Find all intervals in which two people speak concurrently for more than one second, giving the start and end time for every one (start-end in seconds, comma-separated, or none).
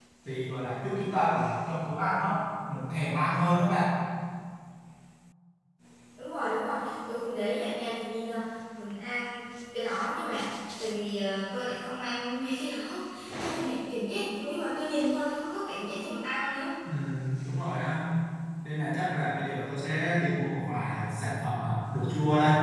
none